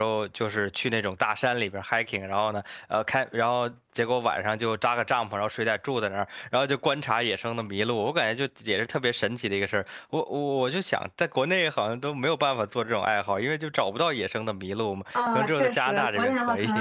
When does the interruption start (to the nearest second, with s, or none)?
15 s